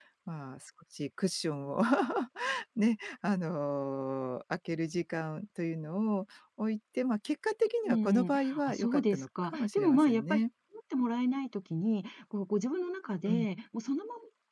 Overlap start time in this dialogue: 7.8 s

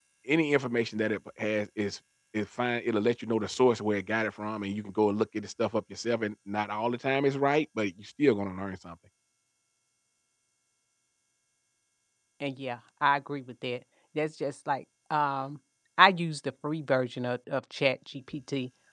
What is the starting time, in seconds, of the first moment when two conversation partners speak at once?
none

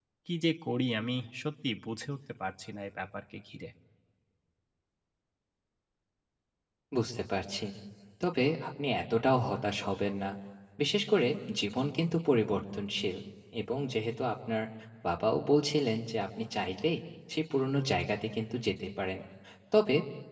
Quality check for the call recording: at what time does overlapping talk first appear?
none

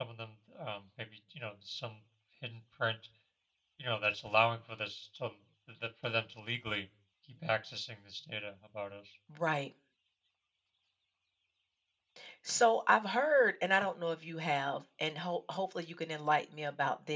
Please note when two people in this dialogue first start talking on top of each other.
none

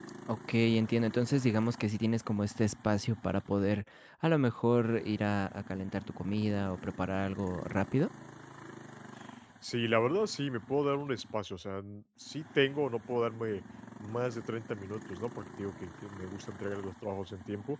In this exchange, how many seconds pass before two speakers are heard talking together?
none

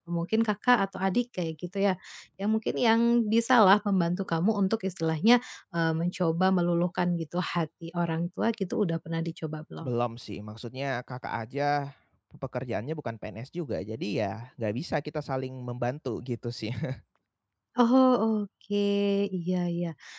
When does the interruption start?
none

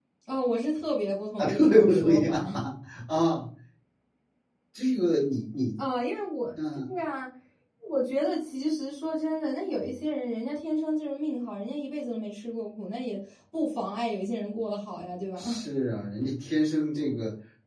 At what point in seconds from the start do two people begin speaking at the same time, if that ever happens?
1.4 s

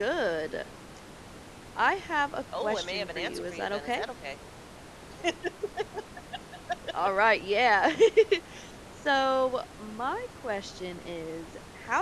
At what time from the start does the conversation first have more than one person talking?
2.6 s

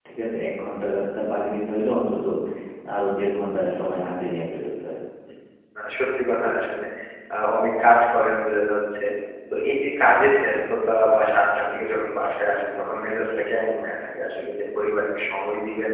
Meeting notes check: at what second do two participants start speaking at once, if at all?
none

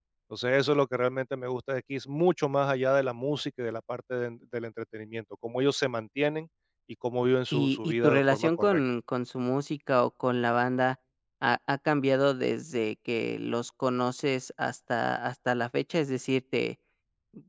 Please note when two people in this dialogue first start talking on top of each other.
7.5 s

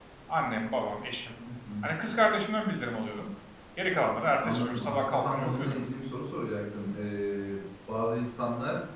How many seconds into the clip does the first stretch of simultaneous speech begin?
4.4 s

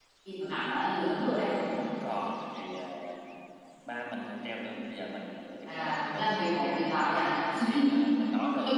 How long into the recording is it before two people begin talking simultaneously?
5.7 s

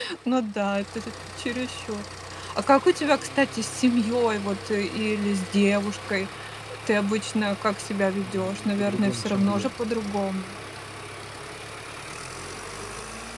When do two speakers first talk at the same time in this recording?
8.2 s

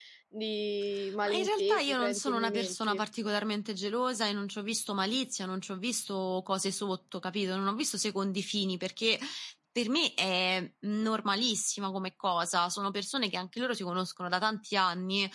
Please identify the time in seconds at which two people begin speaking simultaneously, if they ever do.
1.2 s

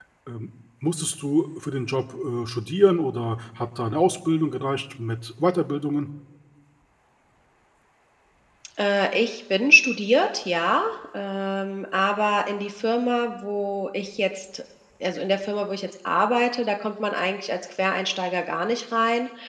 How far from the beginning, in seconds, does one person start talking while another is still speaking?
none

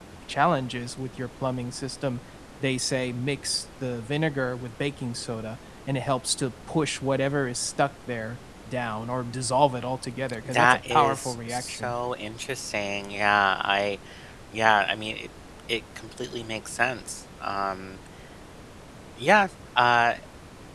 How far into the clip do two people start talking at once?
10.4 s

